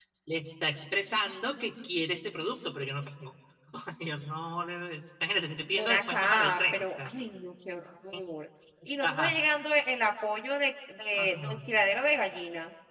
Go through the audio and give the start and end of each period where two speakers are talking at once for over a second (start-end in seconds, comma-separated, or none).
5.8-7.1